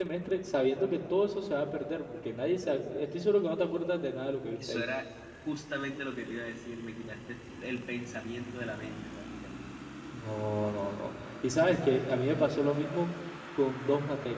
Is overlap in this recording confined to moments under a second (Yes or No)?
Yes